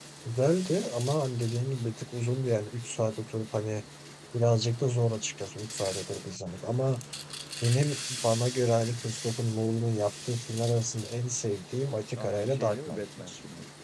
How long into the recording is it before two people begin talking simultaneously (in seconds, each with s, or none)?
12.2 s